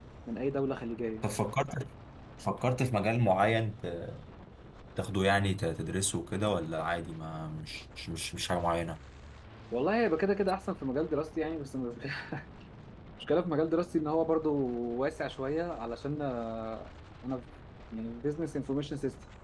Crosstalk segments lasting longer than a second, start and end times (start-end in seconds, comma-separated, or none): none